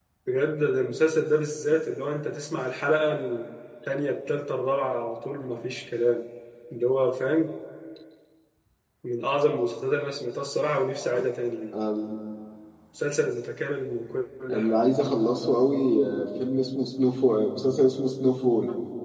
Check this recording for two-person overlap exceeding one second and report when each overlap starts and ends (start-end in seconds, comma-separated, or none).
none